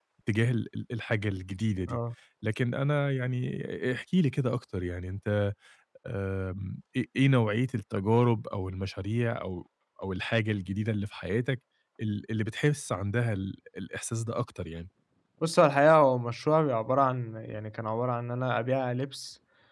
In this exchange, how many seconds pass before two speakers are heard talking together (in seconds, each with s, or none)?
none